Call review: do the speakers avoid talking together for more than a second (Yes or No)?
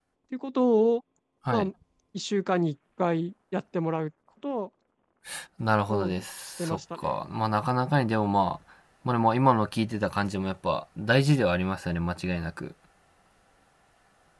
No